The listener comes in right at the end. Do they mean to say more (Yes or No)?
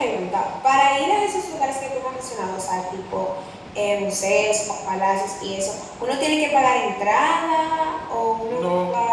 Yes